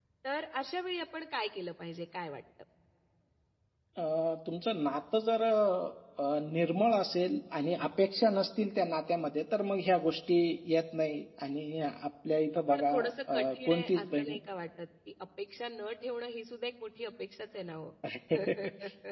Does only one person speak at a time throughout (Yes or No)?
No